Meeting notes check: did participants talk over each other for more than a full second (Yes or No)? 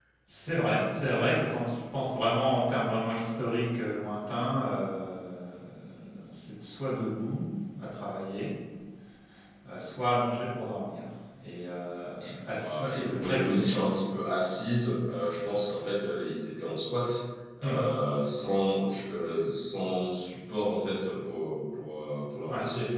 Yes